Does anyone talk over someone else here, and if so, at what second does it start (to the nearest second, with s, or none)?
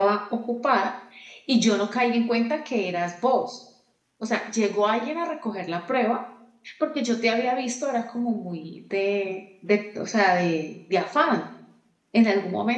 none